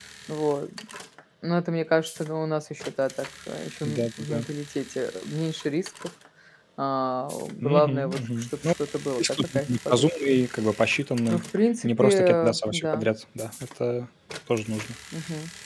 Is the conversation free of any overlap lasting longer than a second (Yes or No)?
No